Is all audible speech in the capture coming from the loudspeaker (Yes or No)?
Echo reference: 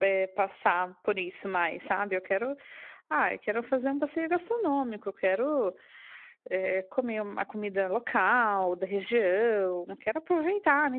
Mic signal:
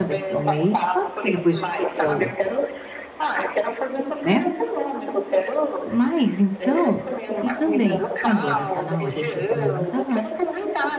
No